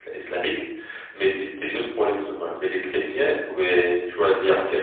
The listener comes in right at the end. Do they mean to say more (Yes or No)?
No